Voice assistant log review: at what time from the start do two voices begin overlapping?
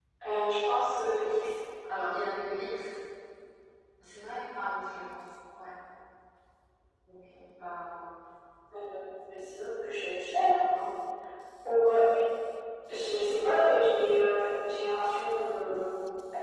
none

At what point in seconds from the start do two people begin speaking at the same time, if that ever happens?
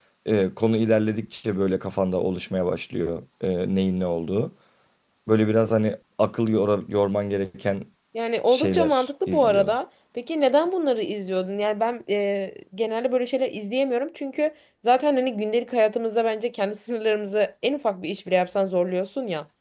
9 s

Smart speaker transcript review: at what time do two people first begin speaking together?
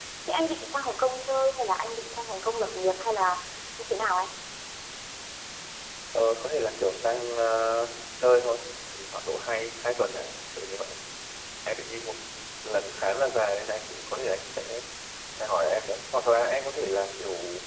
none

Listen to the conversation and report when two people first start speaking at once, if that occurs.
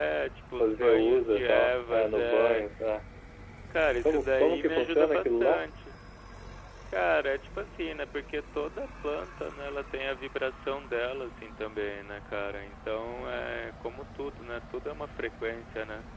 1 s

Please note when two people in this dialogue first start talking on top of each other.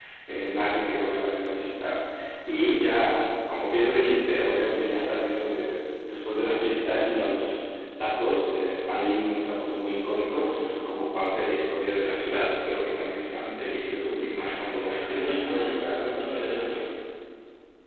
15 s

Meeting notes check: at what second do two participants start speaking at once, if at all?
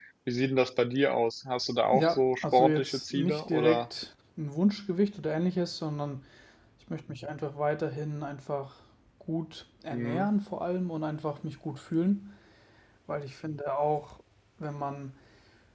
2 s

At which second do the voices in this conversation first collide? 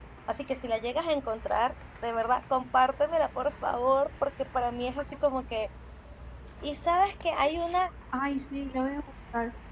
none

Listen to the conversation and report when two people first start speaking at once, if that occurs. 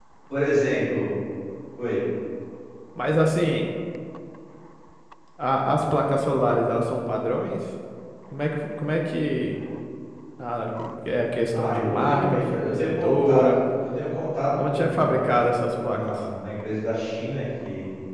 12 s

